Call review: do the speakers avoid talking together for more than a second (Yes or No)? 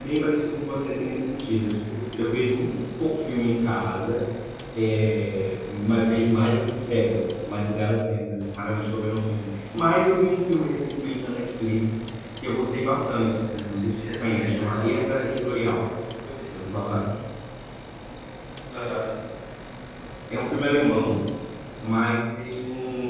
No